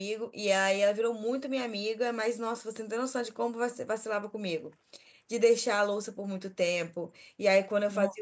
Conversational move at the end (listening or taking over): listening